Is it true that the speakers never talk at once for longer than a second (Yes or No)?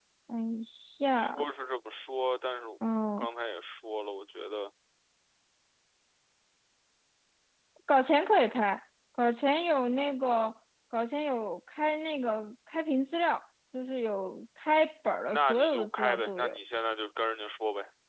No